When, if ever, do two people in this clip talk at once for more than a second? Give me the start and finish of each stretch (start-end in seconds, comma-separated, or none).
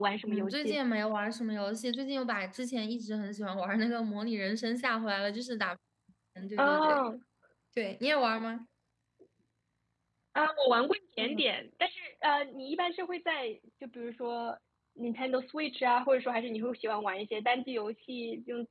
none